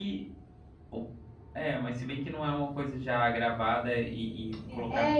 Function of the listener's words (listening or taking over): taking over